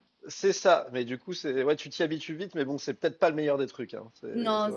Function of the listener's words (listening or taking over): taking over